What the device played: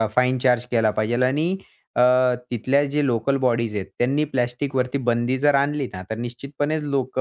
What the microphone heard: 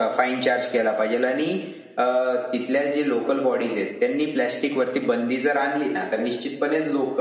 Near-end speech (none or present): none